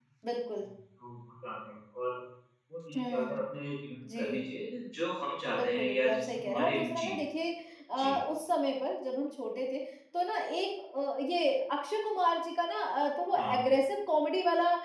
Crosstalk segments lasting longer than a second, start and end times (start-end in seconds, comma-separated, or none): 5.6-7.2